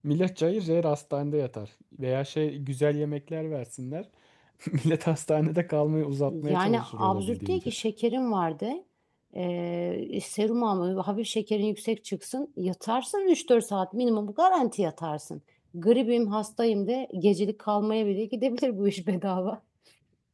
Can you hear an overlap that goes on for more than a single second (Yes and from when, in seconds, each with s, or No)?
Yes, from 6.3 s